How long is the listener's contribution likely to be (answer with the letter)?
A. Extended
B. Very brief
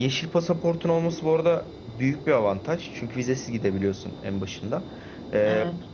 B